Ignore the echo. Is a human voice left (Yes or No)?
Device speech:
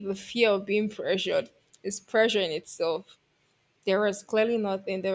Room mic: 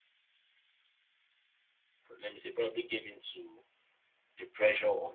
Yes